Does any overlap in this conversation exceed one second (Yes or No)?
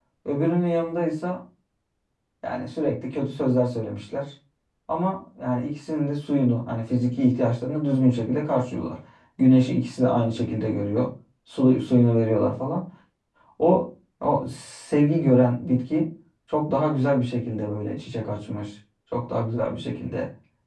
No